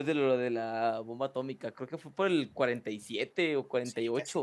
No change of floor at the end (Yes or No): No